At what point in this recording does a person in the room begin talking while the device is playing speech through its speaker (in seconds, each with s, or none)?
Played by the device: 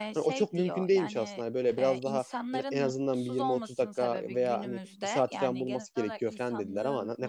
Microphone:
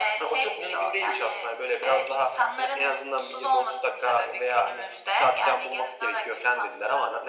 none